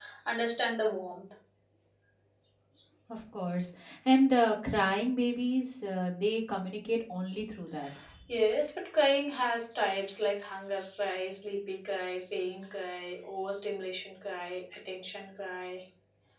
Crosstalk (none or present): none